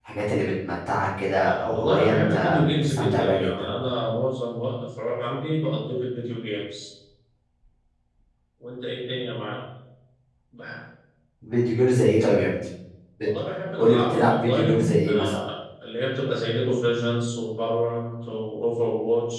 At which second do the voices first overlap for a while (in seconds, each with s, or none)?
1.4 s